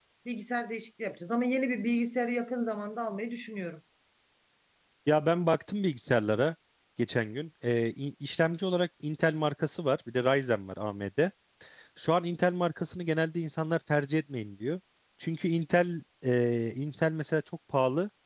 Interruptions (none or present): none